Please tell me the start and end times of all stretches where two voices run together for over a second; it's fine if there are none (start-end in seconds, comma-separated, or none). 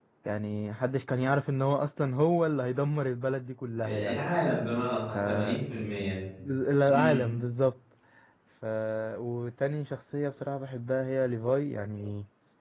none